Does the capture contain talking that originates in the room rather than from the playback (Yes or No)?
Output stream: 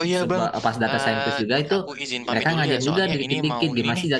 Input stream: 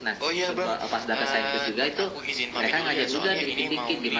No